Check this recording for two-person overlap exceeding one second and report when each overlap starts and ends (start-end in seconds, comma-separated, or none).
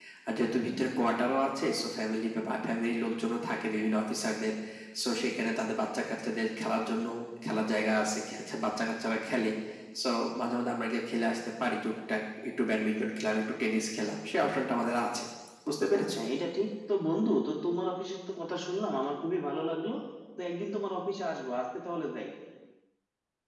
none